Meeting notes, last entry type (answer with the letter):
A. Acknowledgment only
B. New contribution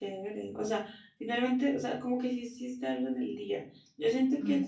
A